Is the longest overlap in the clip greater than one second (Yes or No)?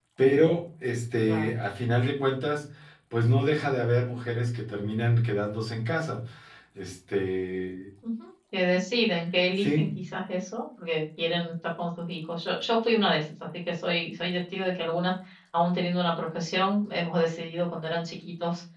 No